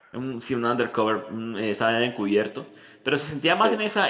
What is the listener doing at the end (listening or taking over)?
listening